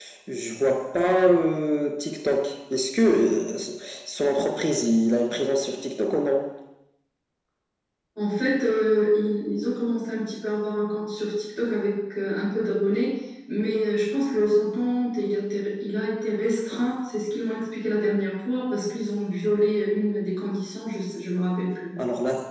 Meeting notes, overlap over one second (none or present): none